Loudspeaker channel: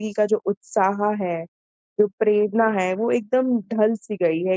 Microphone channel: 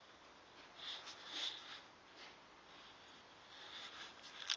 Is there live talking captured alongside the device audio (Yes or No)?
No